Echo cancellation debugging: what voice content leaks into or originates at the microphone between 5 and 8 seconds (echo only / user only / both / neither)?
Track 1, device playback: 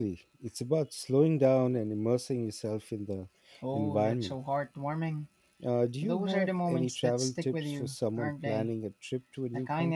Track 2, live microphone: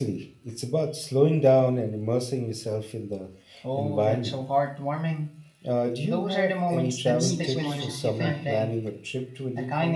both